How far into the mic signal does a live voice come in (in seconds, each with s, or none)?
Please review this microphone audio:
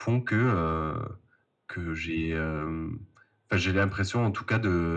none